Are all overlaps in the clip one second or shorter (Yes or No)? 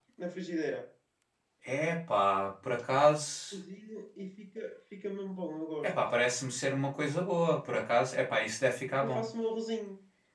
Yes